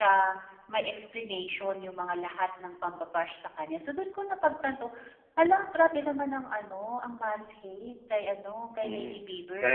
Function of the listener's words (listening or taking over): taking over